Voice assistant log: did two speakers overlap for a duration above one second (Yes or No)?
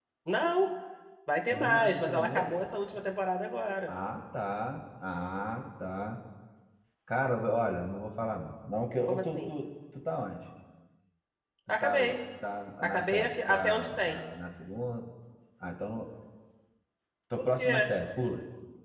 Yes